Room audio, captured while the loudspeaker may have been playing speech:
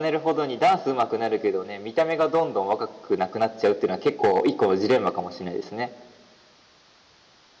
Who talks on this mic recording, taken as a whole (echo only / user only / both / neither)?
echo only